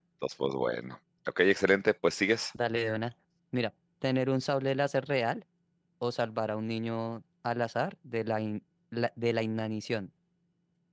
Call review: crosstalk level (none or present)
none